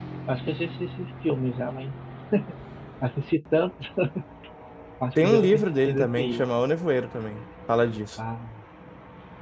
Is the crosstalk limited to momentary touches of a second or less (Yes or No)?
No